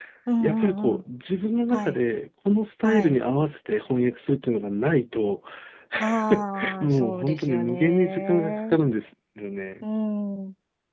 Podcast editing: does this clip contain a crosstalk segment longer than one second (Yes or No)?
Yes